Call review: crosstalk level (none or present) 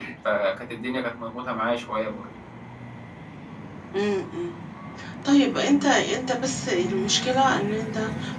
none